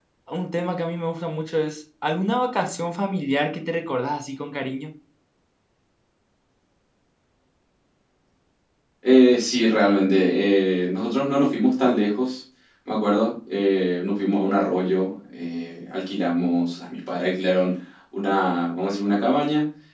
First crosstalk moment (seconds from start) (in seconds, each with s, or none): none